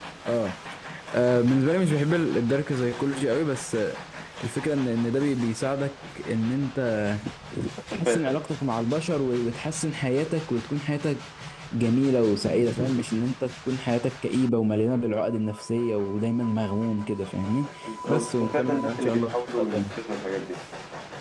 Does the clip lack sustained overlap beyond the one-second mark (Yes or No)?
No